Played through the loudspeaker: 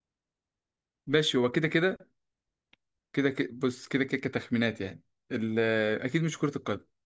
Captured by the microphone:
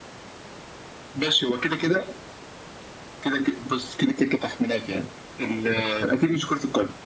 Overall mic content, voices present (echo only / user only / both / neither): echo only